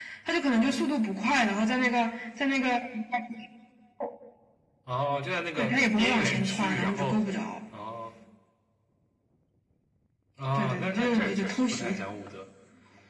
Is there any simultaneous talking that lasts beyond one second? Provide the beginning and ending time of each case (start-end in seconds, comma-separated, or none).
5.6-7.2, 10.5-12.0